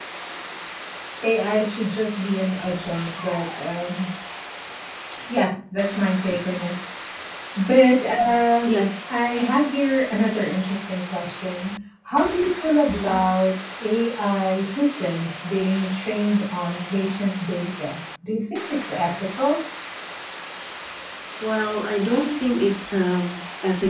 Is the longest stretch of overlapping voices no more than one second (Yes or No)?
Yes